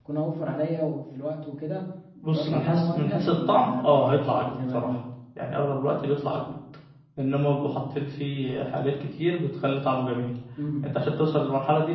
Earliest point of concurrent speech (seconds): 2.3 s

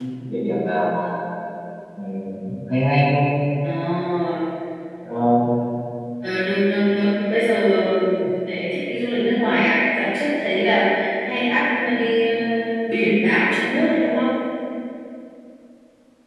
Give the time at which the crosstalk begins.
none

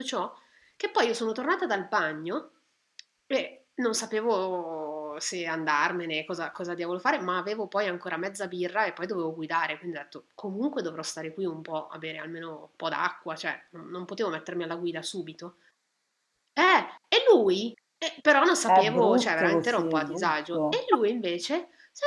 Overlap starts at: 18.7 s

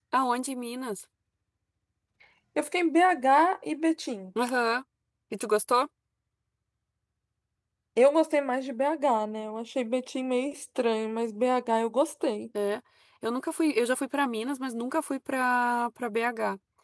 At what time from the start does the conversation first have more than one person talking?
none

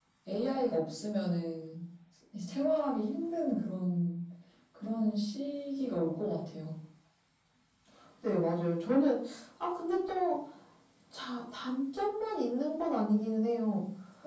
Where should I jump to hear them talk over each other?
none

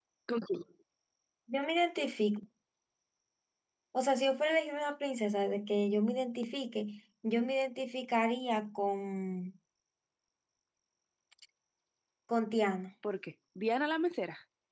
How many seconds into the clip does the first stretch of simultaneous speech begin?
none

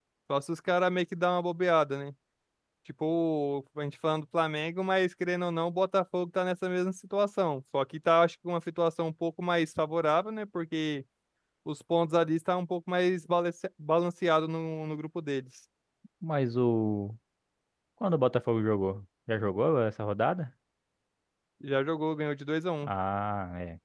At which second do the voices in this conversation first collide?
none

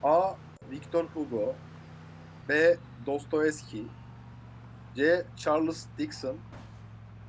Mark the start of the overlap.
none

